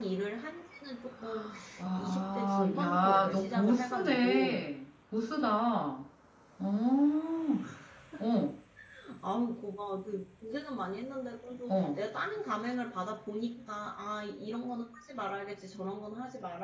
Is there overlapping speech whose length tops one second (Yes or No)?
Yes